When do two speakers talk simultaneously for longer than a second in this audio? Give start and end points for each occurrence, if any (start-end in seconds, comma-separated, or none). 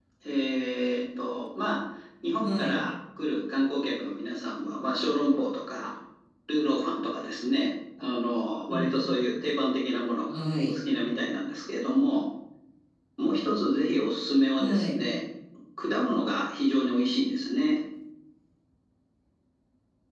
none